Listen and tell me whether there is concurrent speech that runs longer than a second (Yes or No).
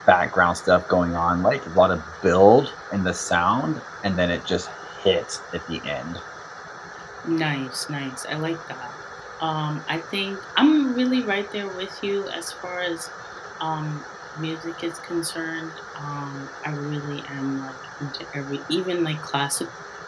No